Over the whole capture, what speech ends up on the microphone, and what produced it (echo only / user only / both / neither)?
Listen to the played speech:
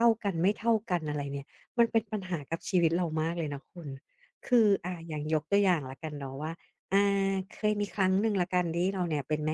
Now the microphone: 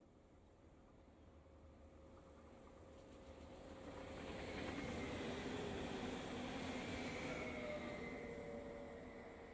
neither